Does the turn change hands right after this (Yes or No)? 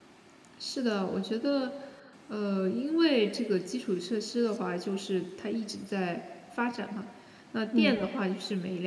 No